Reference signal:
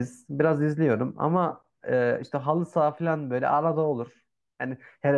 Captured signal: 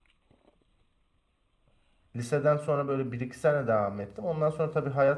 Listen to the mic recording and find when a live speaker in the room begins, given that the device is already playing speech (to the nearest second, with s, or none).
2 s